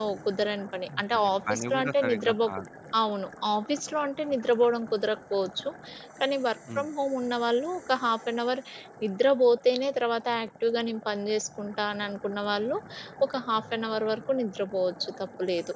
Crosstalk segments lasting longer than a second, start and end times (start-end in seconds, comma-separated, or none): 1.1-2.5